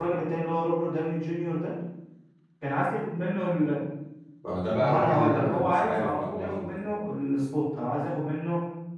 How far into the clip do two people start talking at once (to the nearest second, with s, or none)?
5 s